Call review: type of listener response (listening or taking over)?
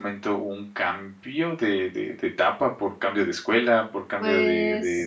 listening